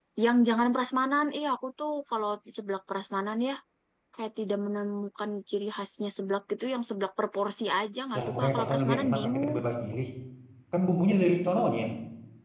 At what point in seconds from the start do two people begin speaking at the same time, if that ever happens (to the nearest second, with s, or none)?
8 s